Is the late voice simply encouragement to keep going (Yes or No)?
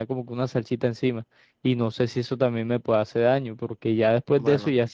Yes